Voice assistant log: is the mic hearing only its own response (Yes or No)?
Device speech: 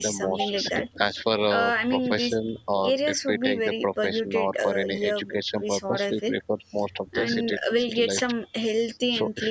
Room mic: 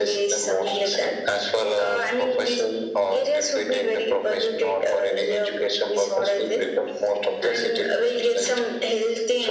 Yes